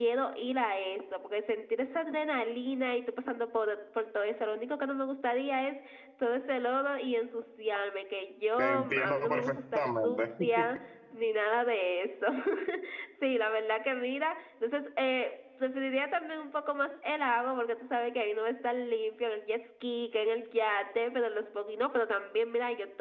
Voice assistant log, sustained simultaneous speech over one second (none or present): present